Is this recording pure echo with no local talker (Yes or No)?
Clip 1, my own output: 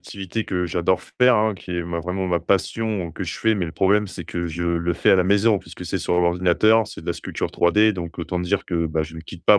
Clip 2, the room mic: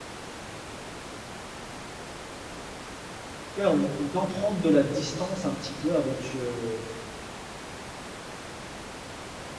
No